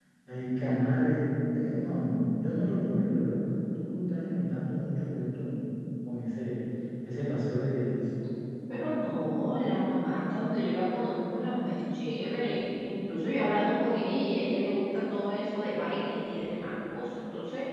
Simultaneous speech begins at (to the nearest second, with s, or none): none